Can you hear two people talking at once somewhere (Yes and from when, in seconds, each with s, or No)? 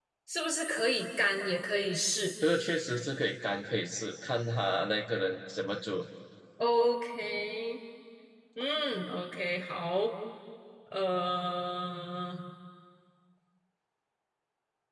No